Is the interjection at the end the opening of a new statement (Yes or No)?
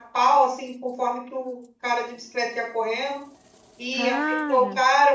No